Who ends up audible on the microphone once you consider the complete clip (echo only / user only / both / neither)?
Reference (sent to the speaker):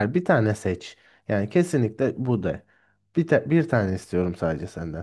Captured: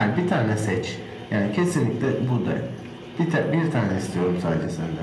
echo only